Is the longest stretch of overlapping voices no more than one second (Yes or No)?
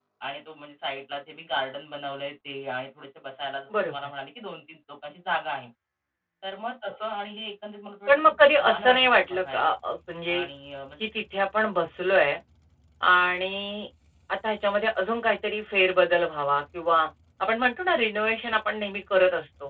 No